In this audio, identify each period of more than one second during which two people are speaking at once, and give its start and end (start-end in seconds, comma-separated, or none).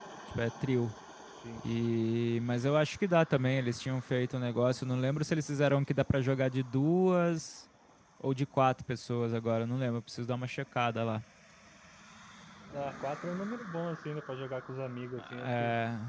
none